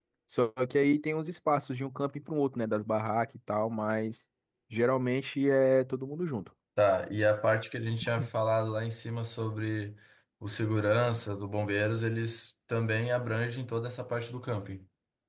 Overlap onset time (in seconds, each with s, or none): none